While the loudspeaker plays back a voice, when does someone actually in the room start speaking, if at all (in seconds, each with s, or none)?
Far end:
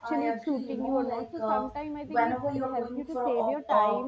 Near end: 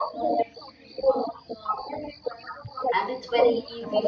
2.9 s